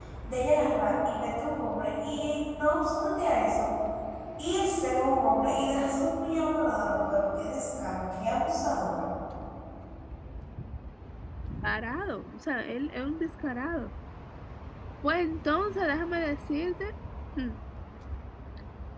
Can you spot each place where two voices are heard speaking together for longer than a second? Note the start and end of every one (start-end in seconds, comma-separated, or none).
none